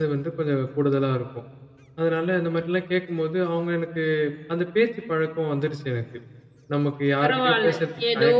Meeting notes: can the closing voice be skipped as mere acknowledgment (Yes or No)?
No